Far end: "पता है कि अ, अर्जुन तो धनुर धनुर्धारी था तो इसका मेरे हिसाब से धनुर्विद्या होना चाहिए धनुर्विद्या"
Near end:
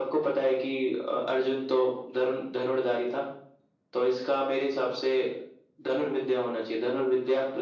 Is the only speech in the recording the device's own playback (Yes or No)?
Yes